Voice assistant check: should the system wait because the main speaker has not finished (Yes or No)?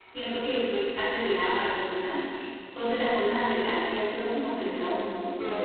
Yes